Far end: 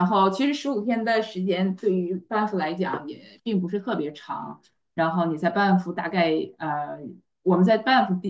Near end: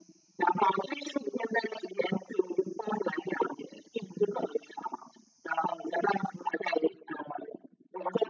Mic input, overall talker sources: echo only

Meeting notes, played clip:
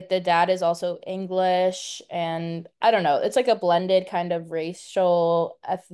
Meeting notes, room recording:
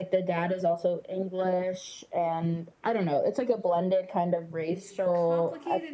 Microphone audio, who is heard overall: both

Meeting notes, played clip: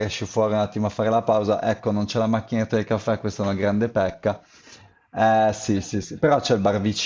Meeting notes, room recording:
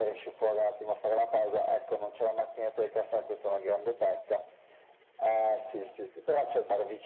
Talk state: echo only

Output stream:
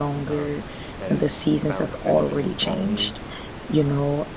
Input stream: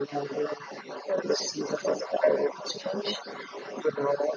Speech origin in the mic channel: echo only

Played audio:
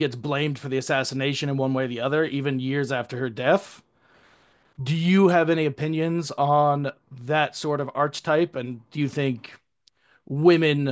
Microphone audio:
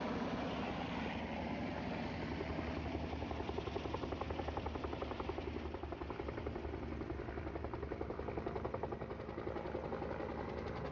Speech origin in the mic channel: neither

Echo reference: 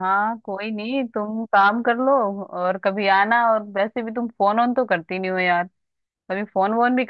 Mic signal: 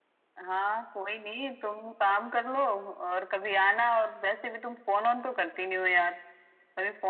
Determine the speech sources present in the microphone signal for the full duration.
echo only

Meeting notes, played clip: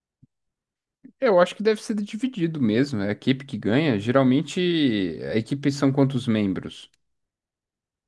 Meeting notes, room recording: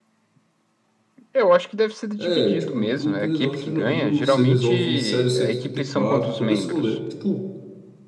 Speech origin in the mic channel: both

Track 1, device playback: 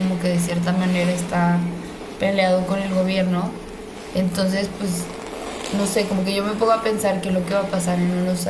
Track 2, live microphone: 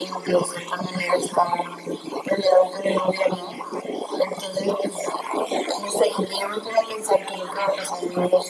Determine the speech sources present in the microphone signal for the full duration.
echo only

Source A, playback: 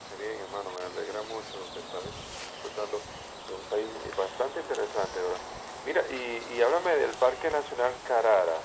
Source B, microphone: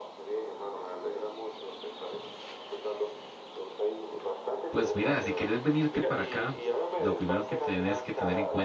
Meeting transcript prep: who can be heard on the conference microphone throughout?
both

